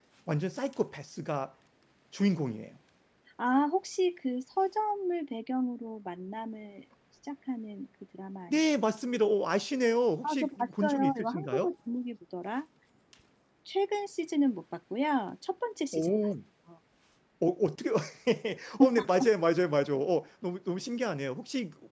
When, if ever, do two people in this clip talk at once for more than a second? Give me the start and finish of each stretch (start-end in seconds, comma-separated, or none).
10.2-11.7